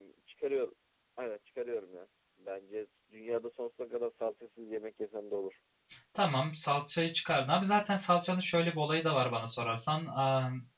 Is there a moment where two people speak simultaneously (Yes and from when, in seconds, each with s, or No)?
No